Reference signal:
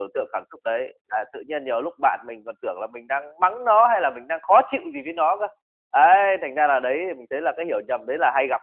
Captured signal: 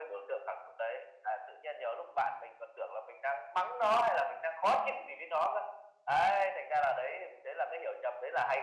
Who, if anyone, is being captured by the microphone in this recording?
echo only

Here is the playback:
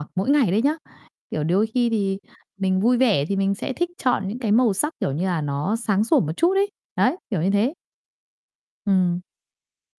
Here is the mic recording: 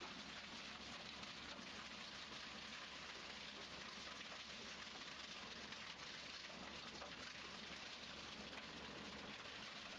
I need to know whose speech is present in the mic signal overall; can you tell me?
neither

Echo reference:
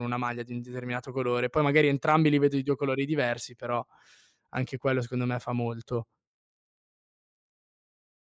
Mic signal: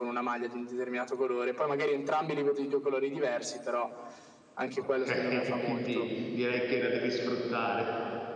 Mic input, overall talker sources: both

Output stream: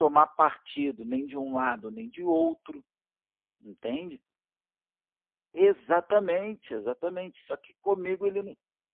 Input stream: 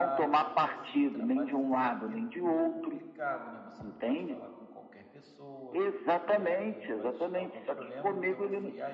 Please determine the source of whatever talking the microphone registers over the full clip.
both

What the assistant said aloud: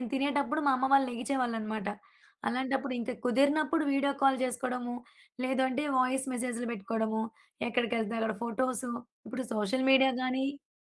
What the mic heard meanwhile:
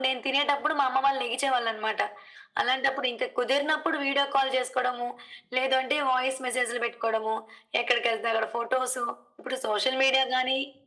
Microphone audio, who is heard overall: echo only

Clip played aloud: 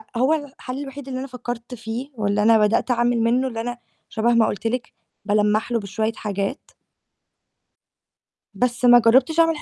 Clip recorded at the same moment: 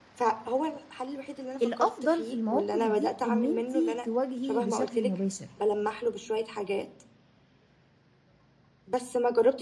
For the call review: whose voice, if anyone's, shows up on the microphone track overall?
both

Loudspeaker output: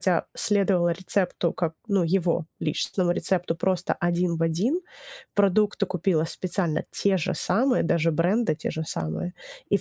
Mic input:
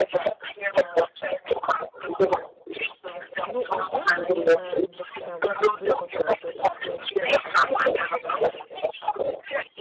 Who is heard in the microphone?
both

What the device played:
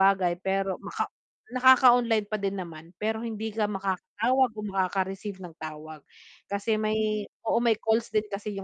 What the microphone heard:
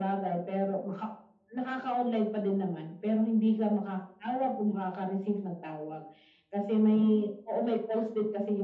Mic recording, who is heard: echo only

